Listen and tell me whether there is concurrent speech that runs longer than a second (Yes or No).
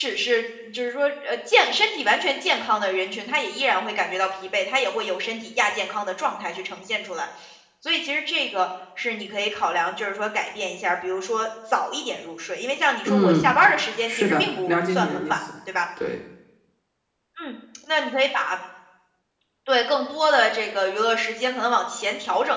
Yes